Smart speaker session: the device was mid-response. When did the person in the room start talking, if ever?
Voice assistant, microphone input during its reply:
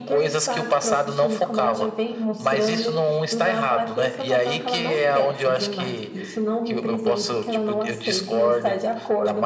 none

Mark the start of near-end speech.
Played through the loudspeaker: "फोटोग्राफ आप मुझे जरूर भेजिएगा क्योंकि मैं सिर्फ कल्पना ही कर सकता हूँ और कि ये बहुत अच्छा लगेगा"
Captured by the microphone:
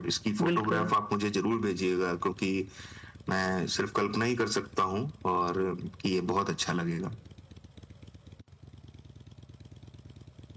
0.4 s

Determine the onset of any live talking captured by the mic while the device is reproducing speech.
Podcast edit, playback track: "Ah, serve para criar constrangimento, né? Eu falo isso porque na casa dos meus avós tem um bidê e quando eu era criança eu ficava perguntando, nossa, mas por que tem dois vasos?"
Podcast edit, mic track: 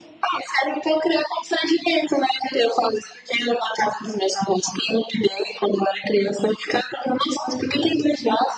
none

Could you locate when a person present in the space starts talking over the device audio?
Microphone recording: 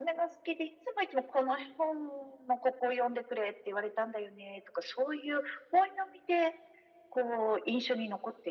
none

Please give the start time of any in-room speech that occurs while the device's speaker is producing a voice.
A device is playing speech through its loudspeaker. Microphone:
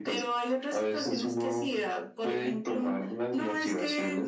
none

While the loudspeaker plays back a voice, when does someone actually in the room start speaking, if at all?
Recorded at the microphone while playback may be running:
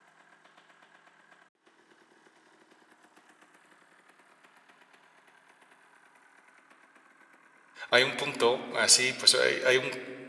7.9 s

